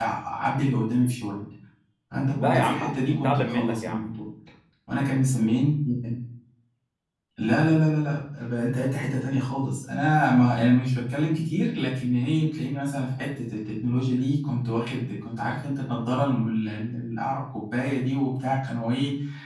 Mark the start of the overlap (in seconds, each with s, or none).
2.4 s